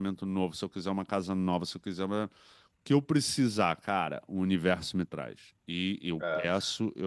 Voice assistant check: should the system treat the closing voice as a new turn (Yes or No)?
No